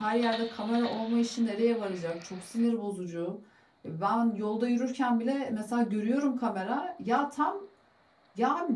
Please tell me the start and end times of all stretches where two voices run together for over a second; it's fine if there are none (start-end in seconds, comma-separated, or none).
none